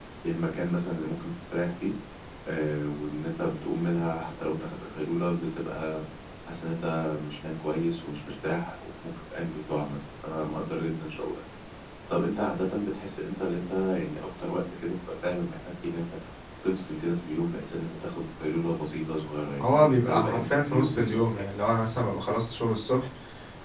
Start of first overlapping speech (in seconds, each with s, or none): 19.6 s